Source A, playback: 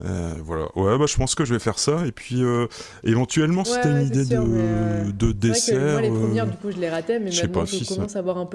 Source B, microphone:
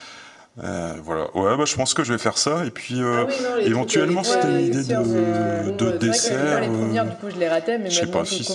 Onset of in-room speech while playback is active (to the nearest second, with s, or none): 3 s